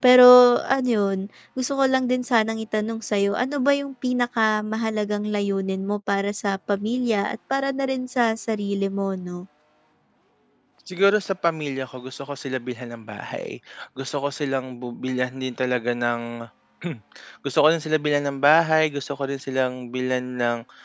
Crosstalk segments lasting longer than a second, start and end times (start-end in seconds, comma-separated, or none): none